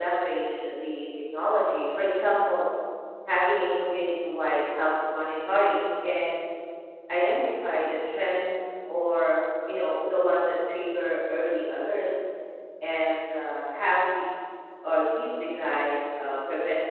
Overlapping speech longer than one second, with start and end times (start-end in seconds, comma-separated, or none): none